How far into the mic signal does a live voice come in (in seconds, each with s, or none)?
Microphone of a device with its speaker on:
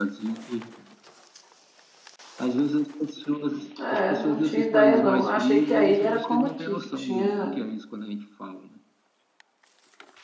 3.8 s